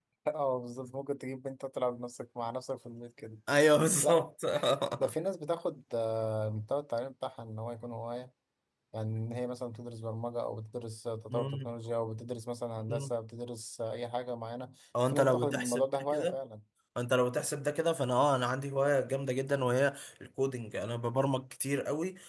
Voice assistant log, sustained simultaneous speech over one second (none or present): present